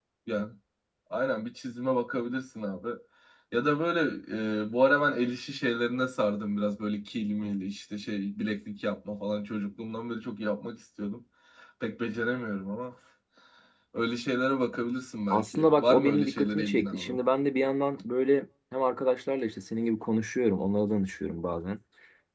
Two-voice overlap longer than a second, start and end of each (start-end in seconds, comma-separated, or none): 15.3-17.2